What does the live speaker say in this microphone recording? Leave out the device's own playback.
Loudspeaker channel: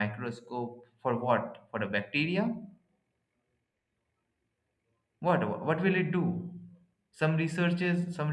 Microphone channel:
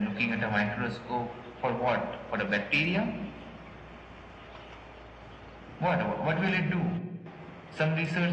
none

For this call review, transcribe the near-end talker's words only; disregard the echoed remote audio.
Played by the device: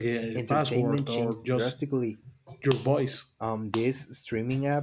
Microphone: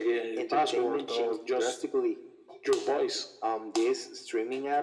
none

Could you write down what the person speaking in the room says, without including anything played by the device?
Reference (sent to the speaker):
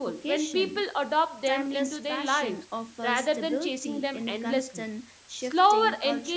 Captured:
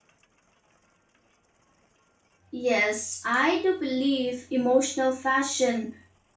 Yes, I do believe emotional fashion

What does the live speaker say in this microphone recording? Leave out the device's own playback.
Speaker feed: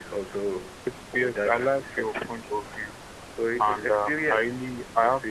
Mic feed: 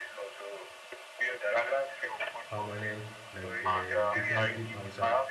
permanent, like a definitive answer,

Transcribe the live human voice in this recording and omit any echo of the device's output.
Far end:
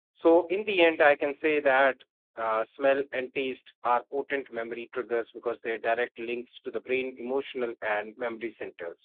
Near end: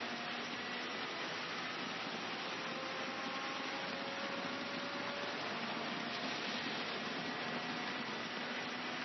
none

